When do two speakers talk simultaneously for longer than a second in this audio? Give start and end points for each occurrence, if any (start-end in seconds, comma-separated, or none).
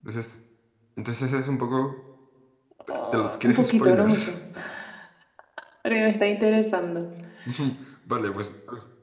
3.1-4.3